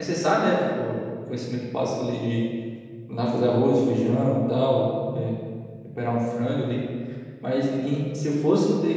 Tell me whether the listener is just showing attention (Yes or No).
Yes